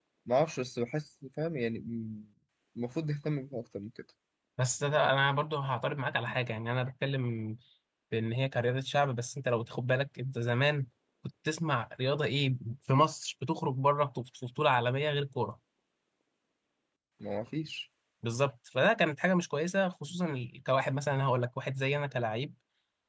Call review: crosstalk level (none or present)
none